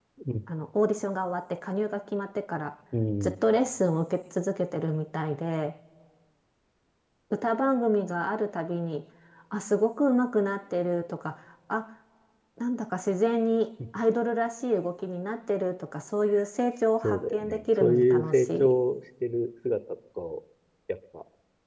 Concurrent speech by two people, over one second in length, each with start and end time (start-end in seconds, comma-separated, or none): 17.0-18.7